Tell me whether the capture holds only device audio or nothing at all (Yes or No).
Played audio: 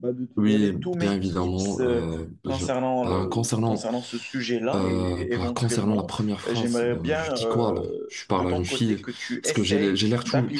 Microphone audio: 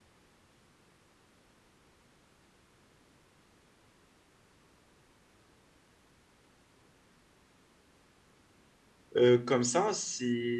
No